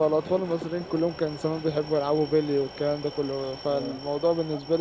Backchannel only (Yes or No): Yes